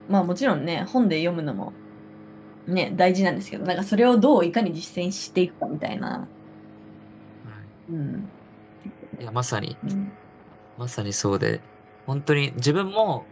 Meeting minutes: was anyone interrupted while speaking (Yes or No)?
No